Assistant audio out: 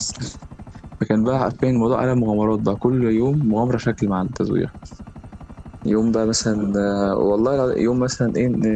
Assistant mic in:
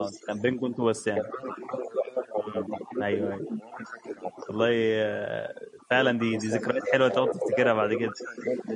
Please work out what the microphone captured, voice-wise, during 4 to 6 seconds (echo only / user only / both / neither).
both